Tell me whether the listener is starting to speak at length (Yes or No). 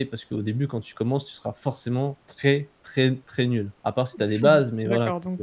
Yes